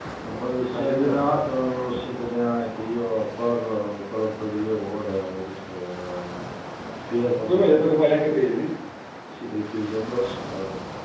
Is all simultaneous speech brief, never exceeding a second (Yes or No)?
Yes